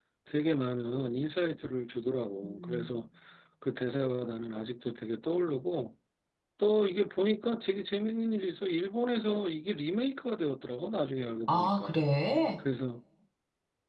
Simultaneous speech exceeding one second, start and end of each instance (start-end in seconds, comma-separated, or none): none